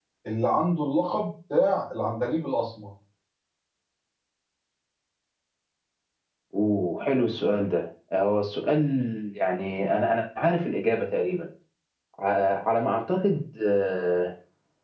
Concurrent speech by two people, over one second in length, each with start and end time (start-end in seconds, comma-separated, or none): none